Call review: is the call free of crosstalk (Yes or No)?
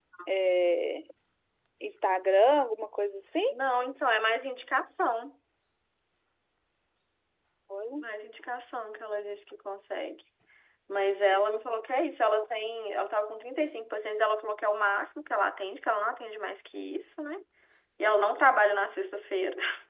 Yes